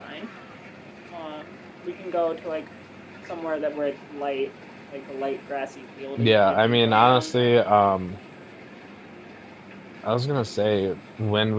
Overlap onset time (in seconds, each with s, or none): 6.2 s